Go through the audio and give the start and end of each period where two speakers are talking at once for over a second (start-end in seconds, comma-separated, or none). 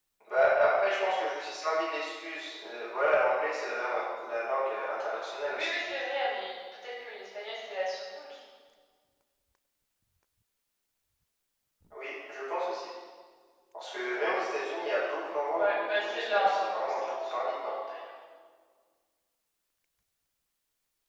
15.5-17.7